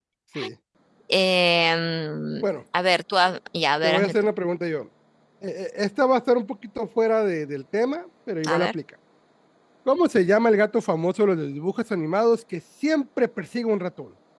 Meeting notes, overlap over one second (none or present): none